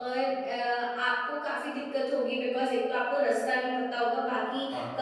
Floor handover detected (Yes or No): No